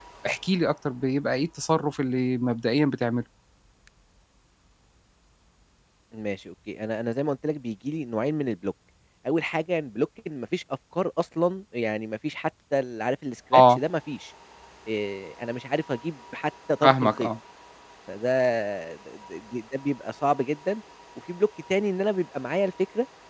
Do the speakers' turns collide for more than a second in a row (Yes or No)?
No